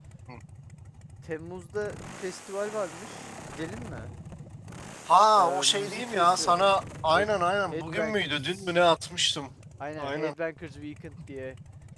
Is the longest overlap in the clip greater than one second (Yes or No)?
Yes